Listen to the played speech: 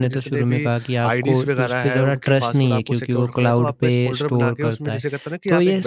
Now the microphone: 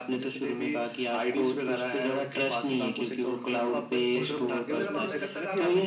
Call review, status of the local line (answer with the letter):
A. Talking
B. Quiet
A